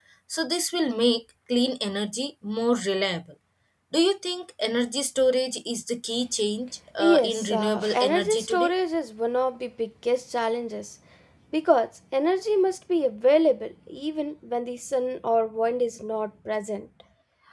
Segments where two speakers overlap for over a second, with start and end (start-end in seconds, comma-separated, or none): 7.0-8.7